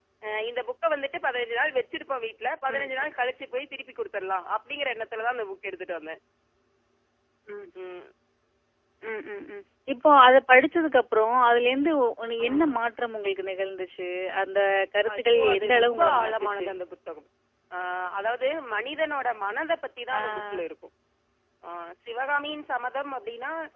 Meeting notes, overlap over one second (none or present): present